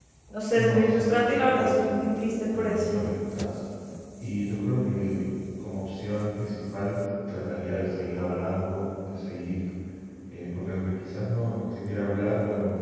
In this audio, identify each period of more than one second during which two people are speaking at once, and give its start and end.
0.5-1.9

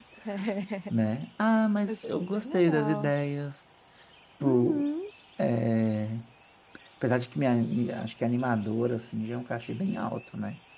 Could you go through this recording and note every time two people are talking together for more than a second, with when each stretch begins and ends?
1.9-3.1

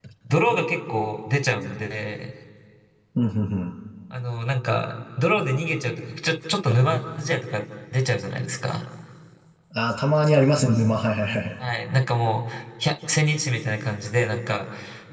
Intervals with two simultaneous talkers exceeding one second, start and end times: none

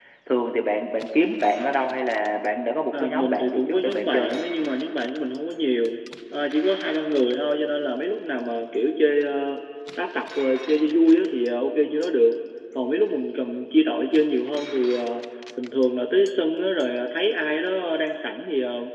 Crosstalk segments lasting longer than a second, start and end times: 2.9-4.4

